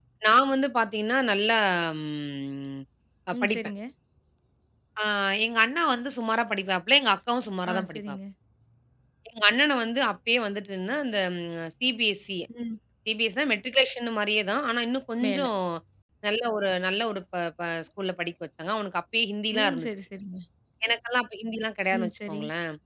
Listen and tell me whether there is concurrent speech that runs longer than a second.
No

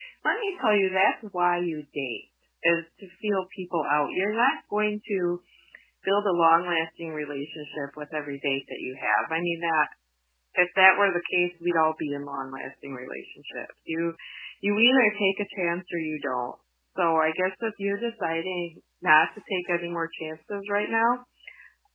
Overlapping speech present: No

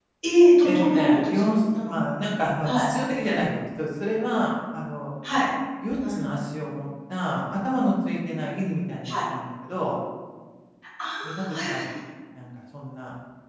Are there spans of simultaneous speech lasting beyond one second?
Yes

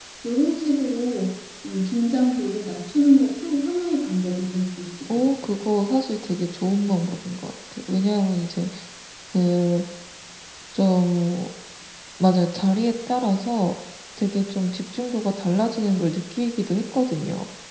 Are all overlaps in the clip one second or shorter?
Yes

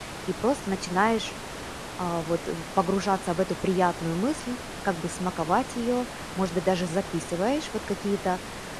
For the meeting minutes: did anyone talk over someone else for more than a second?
No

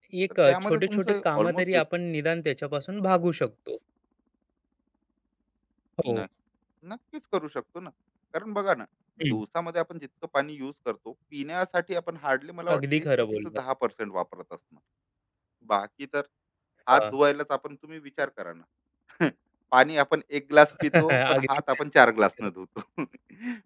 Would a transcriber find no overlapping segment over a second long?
No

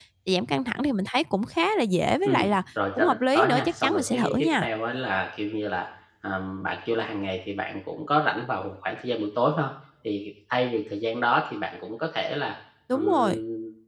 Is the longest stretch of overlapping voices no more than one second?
No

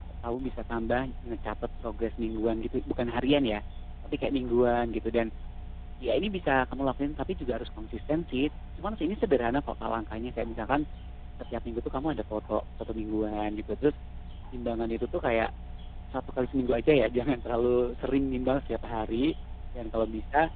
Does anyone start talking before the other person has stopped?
No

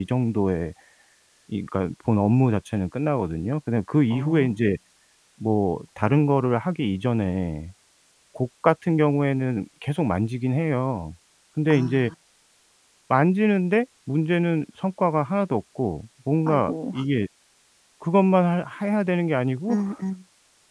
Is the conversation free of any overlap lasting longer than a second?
Yes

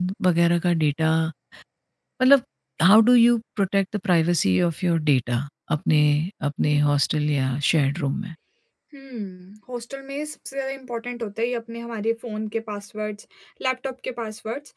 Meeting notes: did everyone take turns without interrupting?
Yes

